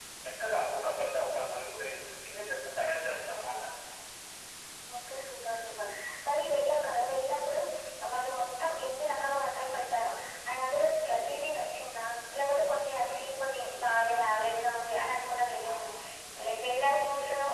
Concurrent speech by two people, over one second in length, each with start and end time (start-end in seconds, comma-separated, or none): none